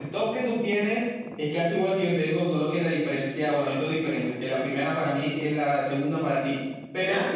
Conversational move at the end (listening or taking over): listening